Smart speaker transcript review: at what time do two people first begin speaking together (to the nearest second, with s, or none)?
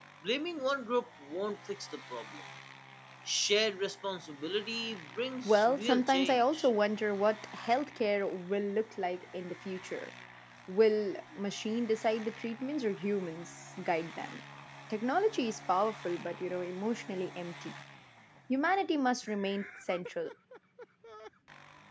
5 s